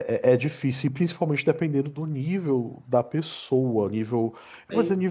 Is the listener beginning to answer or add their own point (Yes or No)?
No